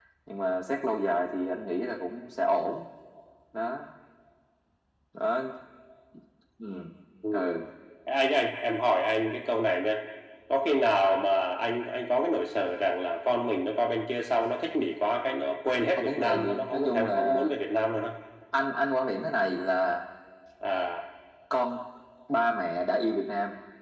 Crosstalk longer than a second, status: present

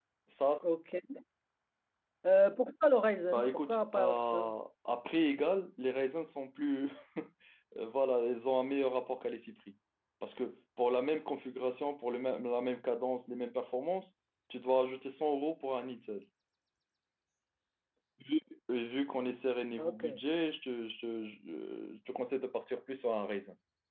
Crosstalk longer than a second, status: present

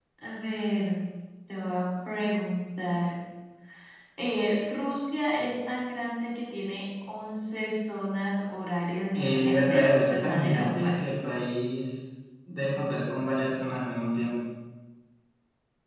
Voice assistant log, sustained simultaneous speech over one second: present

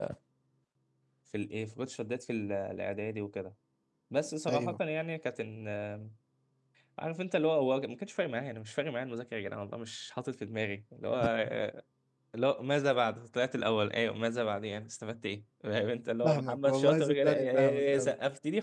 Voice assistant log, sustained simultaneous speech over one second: present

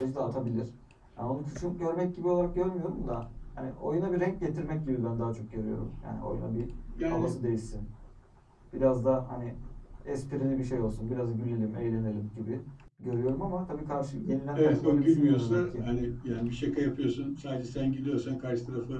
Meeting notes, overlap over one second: present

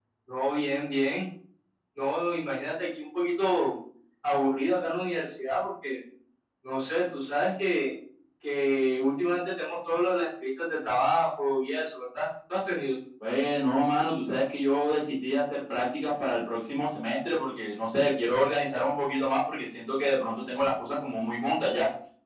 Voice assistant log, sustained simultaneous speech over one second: none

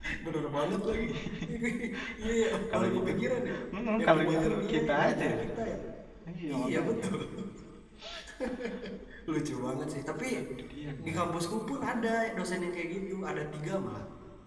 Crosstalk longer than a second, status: present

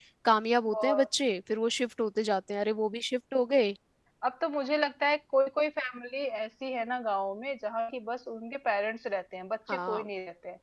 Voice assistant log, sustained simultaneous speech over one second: none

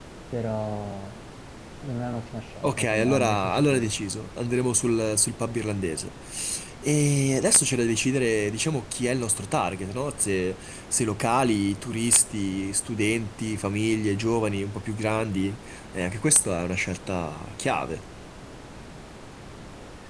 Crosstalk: present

